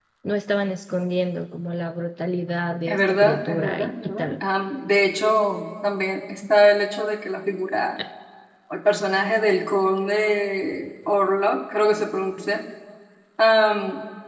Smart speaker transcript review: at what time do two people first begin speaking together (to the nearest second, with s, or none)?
3 s